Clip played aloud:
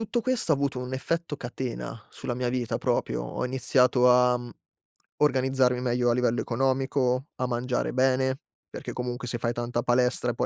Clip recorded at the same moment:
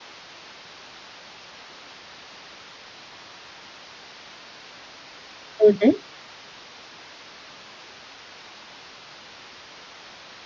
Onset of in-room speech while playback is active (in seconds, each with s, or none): 5.6 s